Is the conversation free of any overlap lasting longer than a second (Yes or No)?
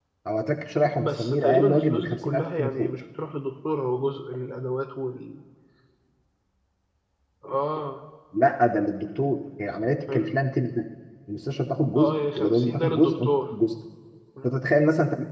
No